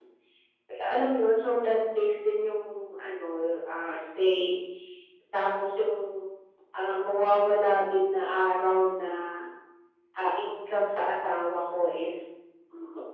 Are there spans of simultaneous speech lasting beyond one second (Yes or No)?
No